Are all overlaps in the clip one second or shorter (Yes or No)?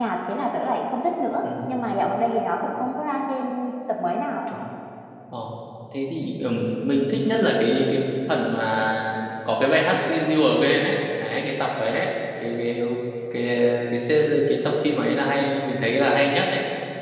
Yes